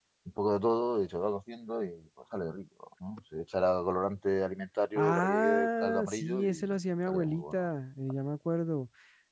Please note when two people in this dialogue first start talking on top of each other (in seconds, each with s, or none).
5.0 s